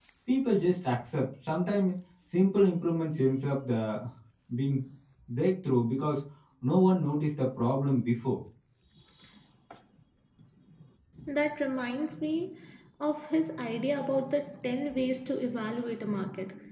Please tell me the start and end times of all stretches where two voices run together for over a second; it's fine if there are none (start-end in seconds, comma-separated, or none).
none